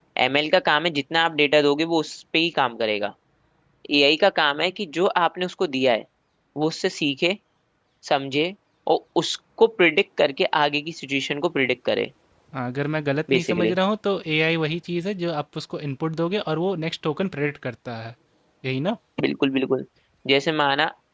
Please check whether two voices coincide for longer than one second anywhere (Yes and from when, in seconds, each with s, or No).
No